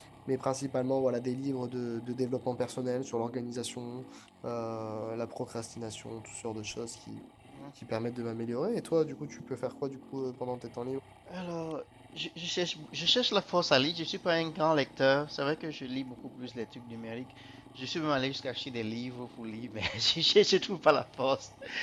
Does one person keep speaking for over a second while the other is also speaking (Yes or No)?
No